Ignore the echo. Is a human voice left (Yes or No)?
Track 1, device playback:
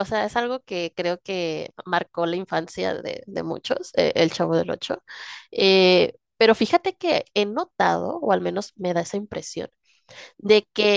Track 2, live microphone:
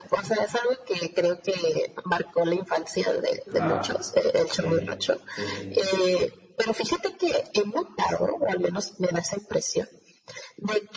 Yes